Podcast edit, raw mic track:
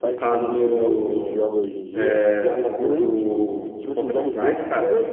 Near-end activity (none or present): present